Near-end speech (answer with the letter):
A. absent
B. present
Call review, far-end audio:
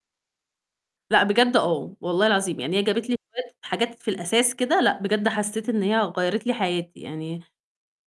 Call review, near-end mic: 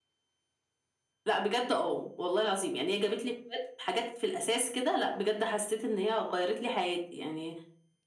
A